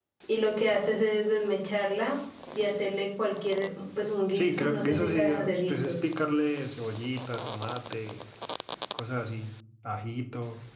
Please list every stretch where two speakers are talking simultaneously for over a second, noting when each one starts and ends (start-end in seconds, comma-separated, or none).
4.3-6.1